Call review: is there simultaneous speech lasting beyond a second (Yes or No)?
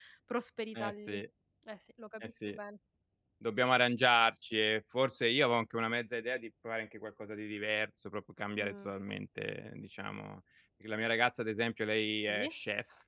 No